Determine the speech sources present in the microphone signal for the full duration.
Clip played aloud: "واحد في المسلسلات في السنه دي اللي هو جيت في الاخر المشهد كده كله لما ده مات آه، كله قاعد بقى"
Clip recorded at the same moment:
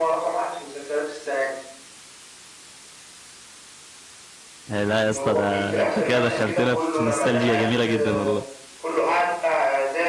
both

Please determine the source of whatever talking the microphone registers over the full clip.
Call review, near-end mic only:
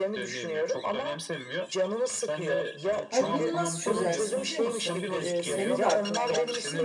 both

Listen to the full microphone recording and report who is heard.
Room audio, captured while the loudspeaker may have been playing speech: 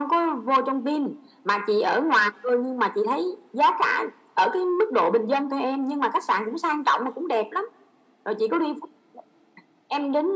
echo only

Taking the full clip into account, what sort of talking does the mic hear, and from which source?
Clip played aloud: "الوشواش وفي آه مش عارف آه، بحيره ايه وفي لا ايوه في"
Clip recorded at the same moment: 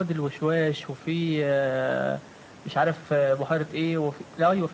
echo only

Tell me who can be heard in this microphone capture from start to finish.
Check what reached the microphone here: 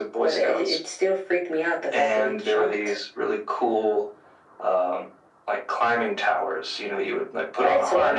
echo only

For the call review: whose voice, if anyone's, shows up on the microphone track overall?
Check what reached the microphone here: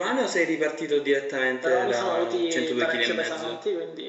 echo only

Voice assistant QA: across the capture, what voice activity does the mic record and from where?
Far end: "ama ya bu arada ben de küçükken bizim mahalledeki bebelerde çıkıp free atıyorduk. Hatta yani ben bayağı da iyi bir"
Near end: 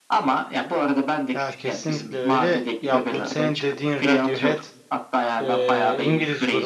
both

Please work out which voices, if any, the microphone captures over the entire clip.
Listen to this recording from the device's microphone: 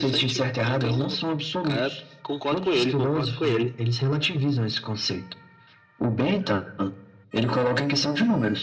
echo only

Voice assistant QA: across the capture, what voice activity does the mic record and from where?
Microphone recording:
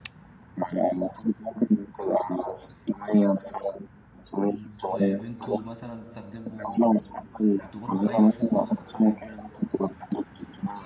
both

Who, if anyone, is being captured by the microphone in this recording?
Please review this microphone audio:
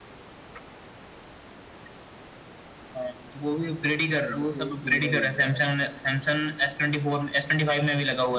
both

